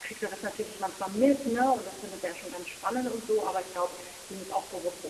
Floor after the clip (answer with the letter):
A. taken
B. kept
B